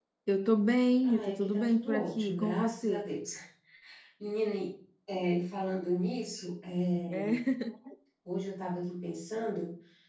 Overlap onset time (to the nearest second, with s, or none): 1 s